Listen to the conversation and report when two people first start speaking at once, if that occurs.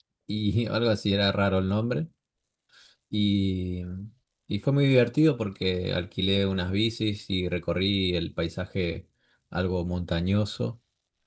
none

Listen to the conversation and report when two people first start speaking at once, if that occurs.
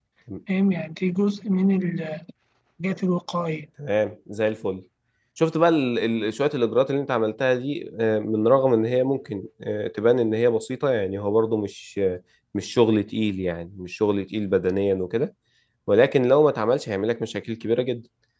none

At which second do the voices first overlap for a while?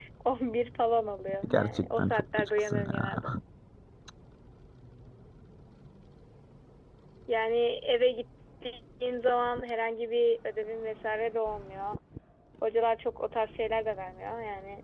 1.4 s

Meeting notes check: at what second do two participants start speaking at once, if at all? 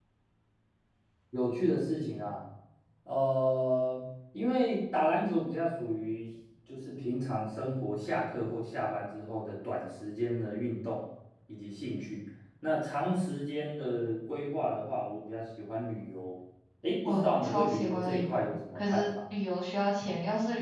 17.1 s

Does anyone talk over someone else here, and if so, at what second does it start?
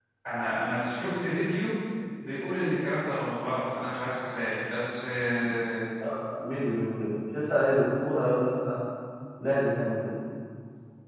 none

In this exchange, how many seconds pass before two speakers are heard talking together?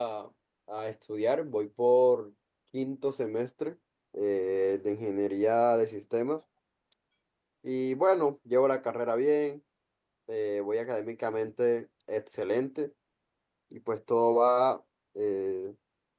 none

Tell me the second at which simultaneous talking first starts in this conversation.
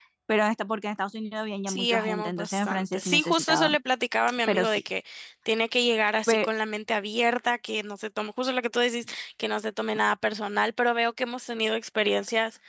1.7 s

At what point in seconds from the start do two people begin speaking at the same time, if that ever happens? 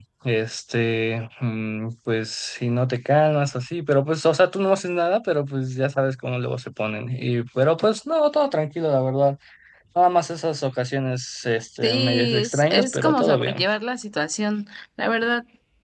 11.8 s

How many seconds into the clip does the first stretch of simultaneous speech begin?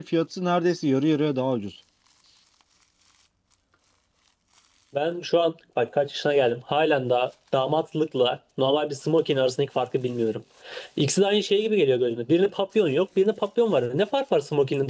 none

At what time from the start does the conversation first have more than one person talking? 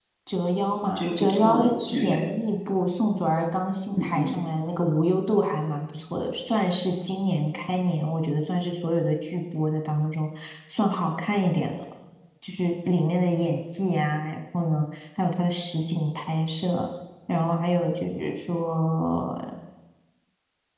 0.8 s

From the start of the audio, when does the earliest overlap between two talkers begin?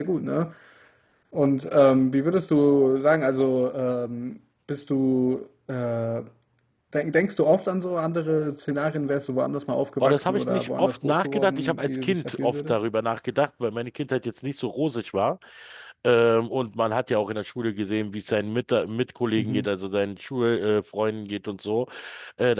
10.0 s

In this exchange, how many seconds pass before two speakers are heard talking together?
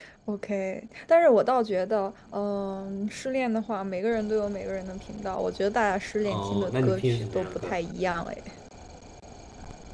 6.2 s

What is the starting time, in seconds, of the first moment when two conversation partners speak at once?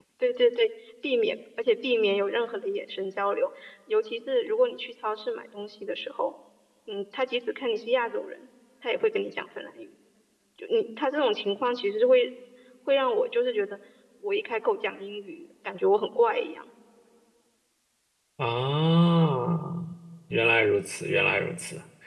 none

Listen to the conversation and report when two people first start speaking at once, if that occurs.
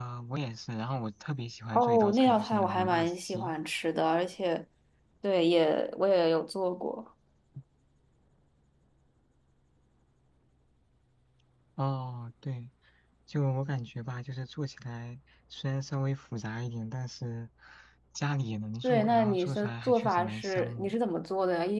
1.7 s

